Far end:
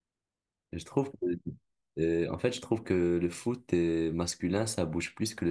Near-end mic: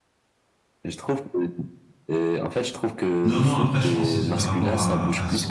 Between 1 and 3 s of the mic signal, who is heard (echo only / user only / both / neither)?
echo only